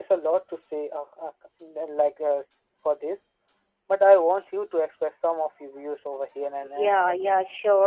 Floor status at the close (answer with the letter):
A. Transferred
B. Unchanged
A